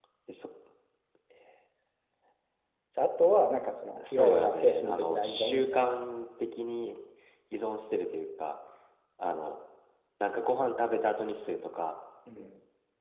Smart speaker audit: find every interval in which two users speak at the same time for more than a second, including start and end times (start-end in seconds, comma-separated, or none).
4.1-5.9